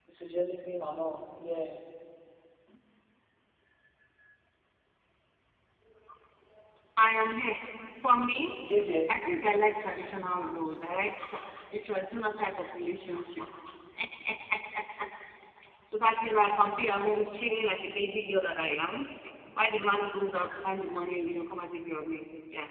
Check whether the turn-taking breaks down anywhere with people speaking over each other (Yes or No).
No